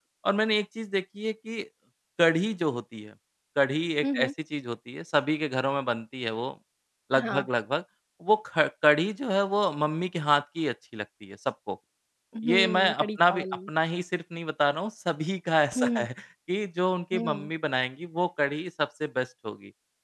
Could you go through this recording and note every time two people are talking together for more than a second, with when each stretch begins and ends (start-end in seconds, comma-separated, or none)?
12.4-13.7